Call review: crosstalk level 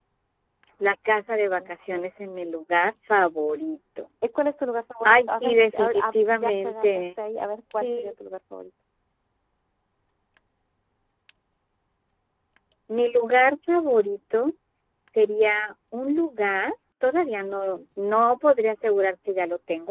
present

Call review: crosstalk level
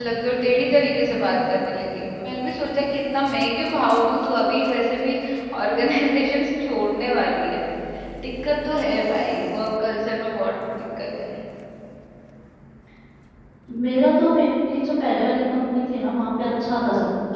none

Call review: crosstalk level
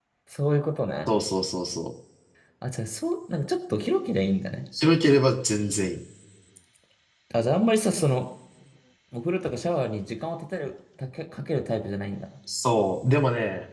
none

